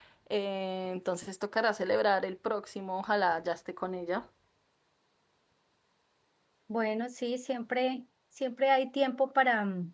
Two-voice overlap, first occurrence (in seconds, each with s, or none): none